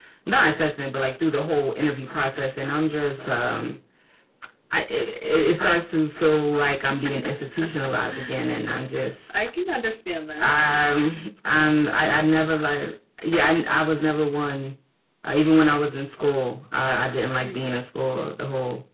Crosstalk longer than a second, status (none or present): none